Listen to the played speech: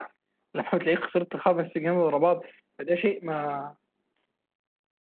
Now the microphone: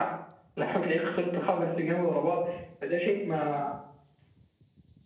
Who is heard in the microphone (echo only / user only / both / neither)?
echo only